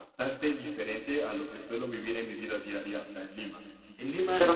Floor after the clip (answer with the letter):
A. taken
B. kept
B